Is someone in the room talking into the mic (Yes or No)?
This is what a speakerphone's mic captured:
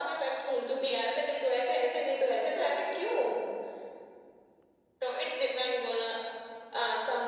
No